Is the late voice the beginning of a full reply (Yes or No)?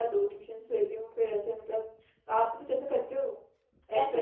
Yes